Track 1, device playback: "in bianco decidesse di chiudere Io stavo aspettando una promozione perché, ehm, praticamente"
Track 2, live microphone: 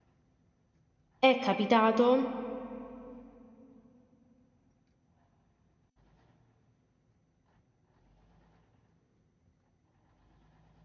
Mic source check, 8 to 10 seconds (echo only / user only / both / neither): neither